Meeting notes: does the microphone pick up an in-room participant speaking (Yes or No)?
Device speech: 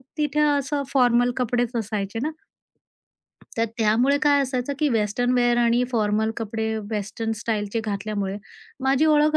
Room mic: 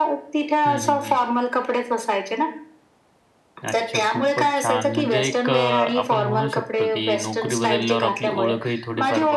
Yes